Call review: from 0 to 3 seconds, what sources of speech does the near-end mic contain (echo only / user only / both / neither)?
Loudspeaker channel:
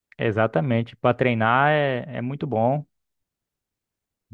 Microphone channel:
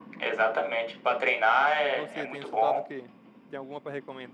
both